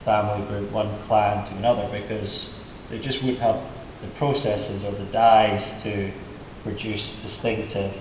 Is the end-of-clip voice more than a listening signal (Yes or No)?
No